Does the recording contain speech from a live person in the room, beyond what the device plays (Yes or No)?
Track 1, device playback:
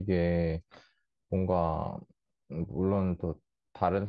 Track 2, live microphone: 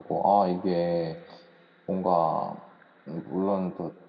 No